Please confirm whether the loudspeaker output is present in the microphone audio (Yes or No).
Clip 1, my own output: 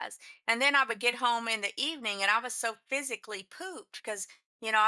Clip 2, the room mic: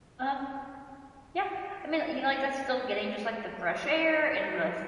No